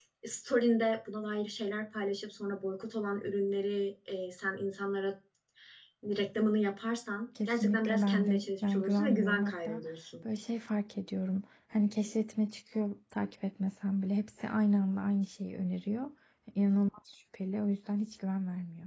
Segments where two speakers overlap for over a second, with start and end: 7.5-9.8

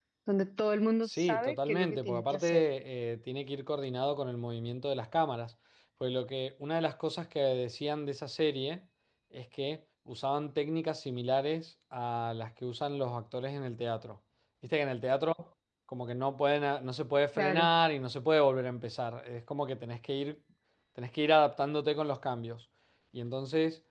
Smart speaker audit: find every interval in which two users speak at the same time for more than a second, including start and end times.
1.0-2.7

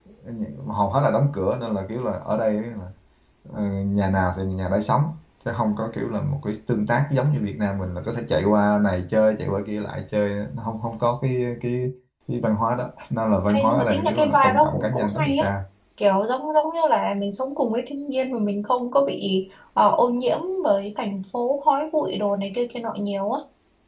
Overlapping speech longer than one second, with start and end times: 13.5-15.4

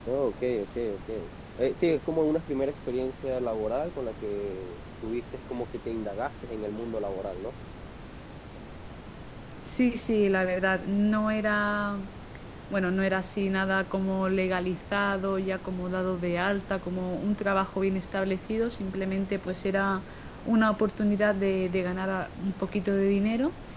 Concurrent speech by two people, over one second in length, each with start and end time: none

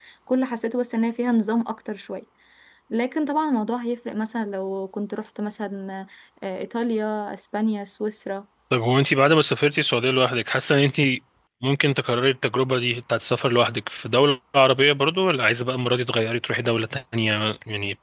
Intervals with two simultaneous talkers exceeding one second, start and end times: none

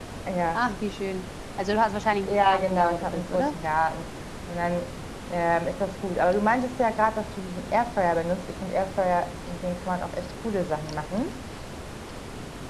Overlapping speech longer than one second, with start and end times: 2.2-3.5

